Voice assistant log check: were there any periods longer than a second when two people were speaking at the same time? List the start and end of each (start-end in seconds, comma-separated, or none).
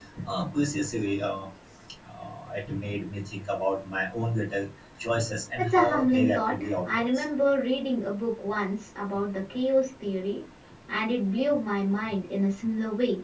5.6-7.2